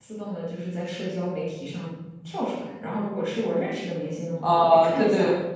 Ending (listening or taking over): taking over